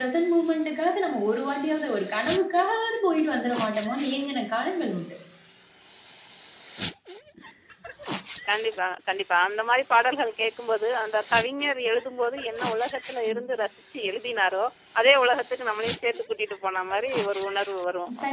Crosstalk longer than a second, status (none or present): none